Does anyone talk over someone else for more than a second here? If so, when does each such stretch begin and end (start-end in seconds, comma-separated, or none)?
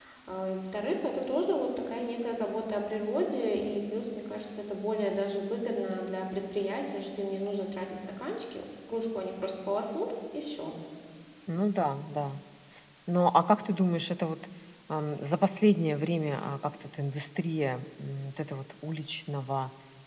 none